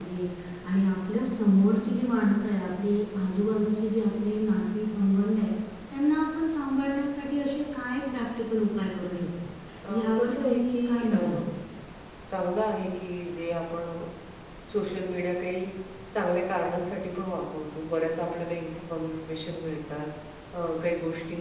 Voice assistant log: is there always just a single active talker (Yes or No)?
No